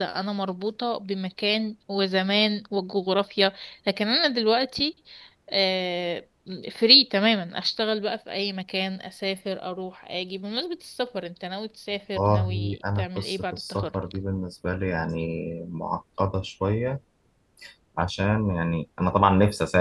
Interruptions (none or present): present